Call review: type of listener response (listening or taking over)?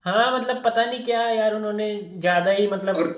taking over